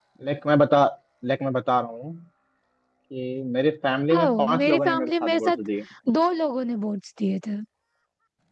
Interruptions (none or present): present